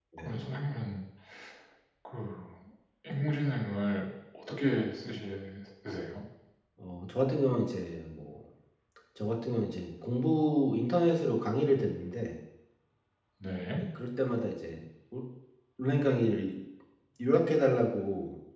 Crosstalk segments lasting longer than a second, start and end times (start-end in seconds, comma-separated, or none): none